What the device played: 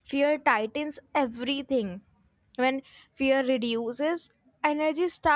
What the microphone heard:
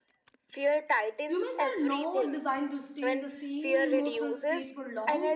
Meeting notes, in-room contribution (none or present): present